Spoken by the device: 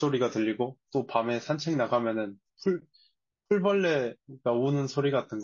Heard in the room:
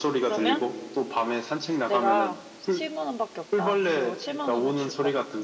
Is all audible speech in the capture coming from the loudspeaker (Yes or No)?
No